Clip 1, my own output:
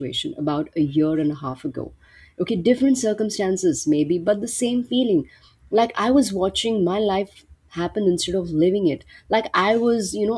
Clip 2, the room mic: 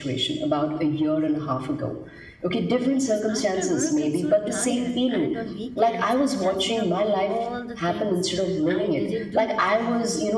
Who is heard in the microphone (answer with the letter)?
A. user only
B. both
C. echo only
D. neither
B